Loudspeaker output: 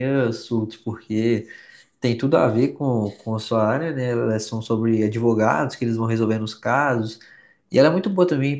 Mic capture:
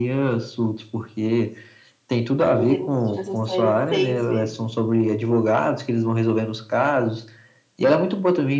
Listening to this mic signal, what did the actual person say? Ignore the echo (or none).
mas ele assistiu essa série seis vezes.